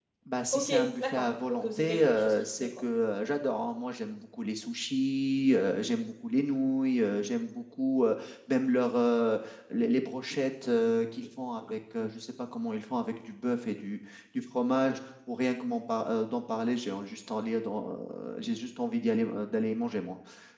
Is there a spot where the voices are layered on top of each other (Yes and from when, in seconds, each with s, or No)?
Yes, from 0.5 s